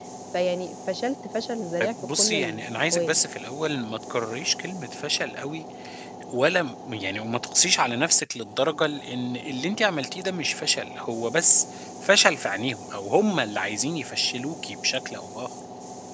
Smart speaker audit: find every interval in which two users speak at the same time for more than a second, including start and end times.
1.8-3.3

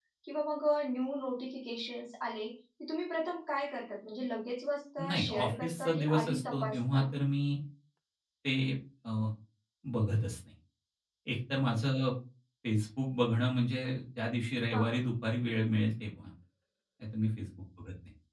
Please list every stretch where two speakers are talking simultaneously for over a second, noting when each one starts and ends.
5.0-7.0

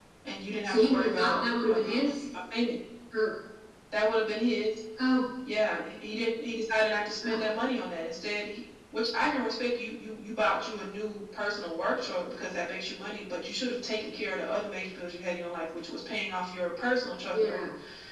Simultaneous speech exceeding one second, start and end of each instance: 0.6-2.1

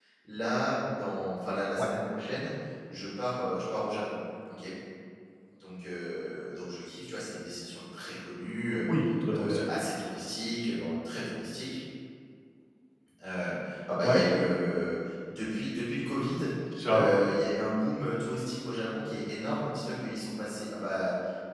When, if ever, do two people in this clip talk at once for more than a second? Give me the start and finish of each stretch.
none

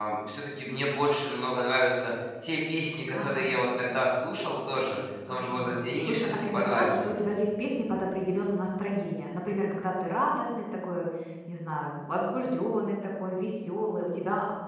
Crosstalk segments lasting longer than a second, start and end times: 5.3-7.2

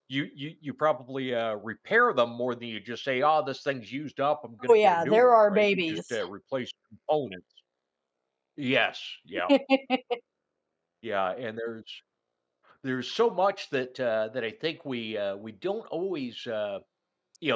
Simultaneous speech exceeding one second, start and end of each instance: 4.7-6.0

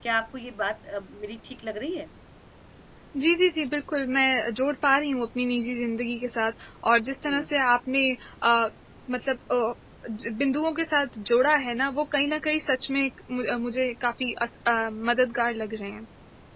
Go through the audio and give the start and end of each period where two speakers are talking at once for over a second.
none

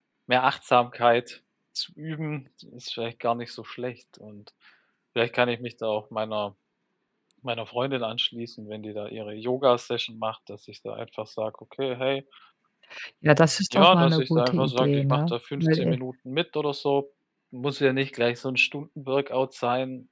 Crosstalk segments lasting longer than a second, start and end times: 13.7-16.0

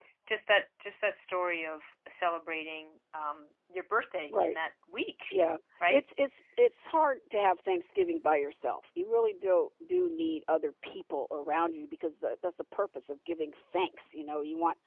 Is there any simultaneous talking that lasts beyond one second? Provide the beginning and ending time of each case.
none

